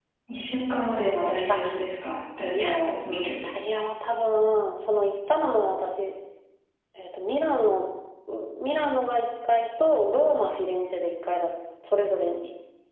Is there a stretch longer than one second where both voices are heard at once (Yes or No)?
No